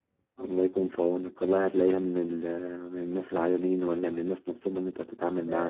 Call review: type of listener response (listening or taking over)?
taking over